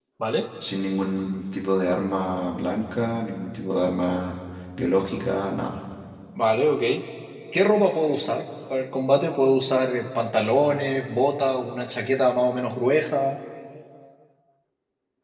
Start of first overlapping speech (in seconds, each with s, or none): none